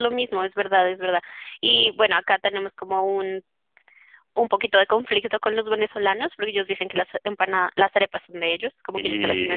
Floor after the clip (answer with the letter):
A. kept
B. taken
A